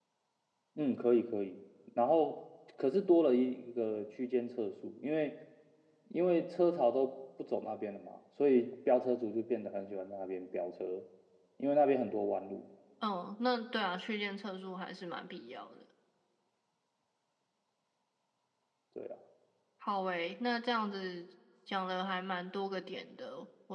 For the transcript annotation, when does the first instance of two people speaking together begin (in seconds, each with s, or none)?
none